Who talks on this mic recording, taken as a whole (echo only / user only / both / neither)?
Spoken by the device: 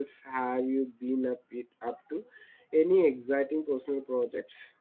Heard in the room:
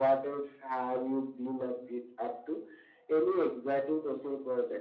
echo only